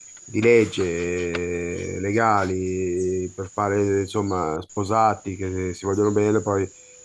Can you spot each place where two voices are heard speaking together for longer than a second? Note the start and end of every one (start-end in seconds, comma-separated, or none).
none